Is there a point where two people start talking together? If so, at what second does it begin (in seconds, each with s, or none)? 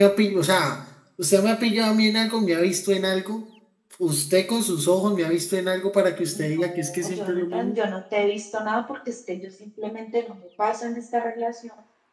6.3 s